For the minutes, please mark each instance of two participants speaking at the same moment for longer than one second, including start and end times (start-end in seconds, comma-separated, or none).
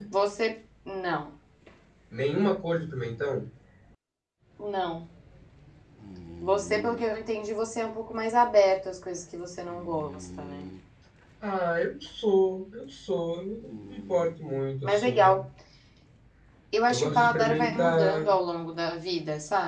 16.9-18.3